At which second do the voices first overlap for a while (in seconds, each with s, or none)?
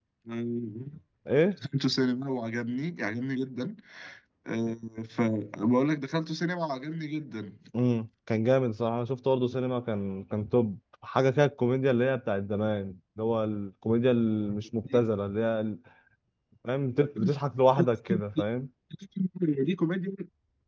none